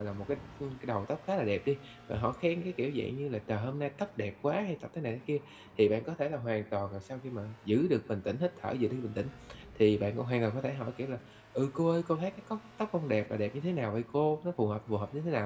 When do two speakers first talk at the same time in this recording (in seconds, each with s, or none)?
none